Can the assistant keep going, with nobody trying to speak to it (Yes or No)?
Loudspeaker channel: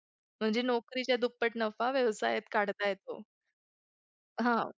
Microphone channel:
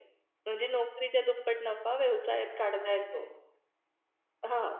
Yes